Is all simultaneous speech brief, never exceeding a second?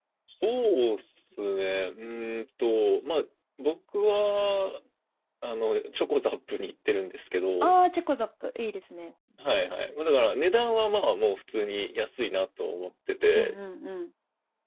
Yes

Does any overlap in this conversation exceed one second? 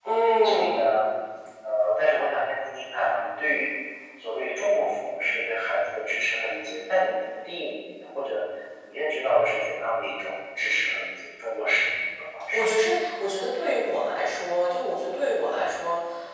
No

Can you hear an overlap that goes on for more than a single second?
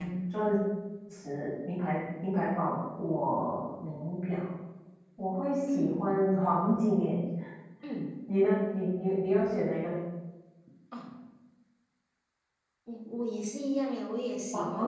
No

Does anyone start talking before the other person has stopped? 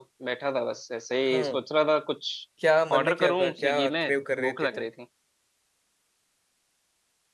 Yes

